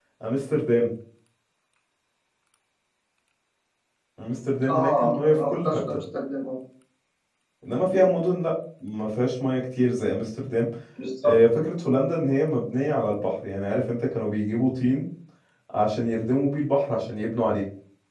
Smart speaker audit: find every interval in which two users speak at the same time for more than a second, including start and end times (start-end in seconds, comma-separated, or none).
4.7-6.0